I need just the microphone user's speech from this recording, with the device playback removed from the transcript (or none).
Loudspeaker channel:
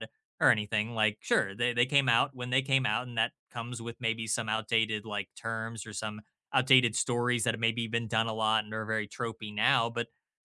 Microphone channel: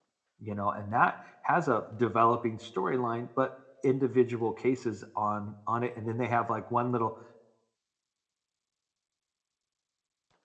you know and that has a developing storyline but individual cases on on it and then they have like one little